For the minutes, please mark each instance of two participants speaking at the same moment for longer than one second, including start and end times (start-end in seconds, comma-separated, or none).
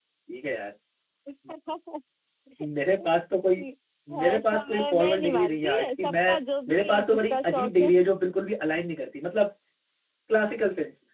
4.2-6.2, 6.7-7.9